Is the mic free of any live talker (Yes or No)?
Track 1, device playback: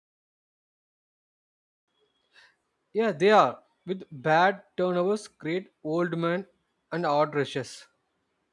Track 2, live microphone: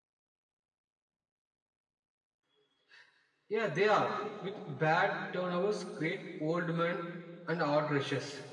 Yes